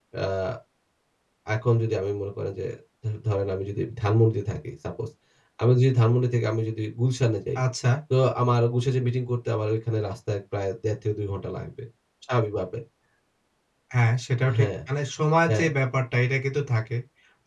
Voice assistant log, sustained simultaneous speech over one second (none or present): none